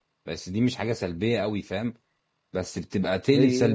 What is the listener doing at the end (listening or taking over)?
listening